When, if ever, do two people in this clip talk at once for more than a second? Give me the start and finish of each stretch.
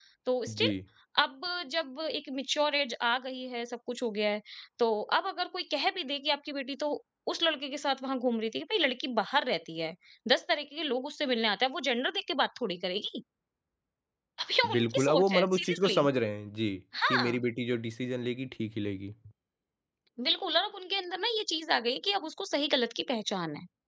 14.8-16.0

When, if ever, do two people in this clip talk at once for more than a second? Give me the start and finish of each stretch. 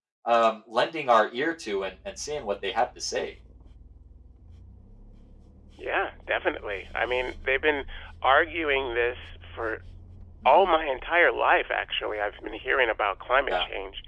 none

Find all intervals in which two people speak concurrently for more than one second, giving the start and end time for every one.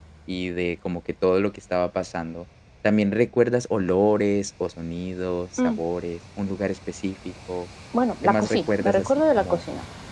8.2-9.6

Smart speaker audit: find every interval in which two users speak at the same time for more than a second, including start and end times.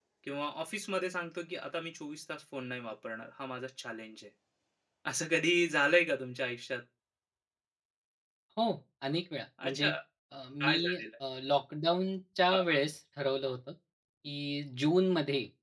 none

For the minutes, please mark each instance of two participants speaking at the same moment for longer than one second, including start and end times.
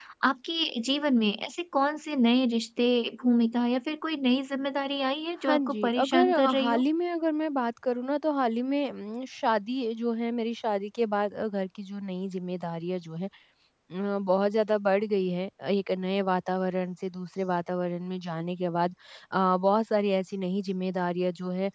5.5-6.8

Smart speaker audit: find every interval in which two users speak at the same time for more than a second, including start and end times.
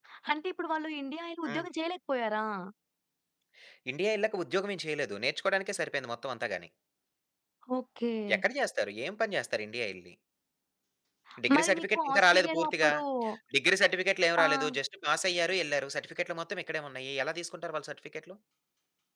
11.5-12.9

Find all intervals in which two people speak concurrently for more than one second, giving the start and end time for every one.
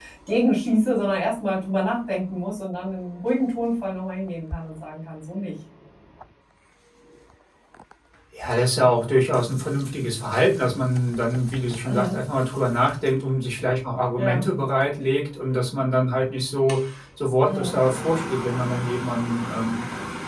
none

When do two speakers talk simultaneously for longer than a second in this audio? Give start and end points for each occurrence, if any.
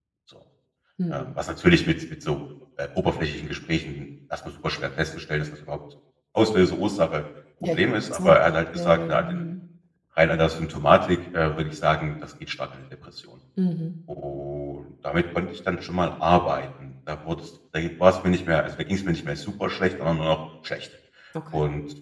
7.7-9.4

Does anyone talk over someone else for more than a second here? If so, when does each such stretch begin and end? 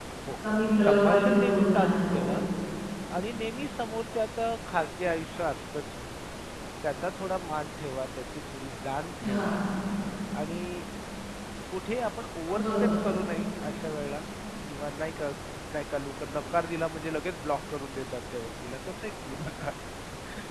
0.8-2.2

